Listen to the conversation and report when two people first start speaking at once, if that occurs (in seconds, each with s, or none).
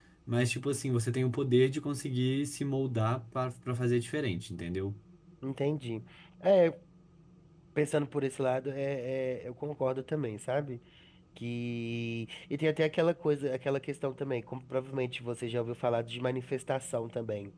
none